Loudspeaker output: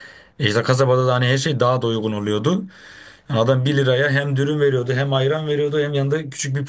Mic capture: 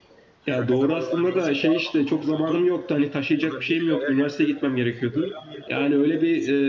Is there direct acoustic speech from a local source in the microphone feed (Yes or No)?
Yes